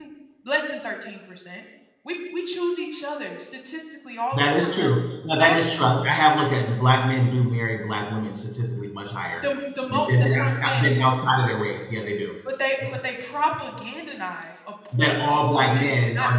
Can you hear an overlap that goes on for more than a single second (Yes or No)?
Yes